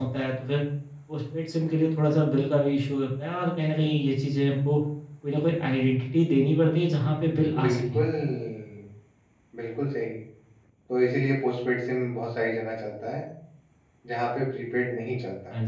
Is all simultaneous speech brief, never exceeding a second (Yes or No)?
Yes